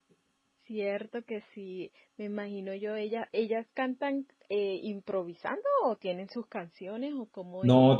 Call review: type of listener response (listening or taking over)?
taking over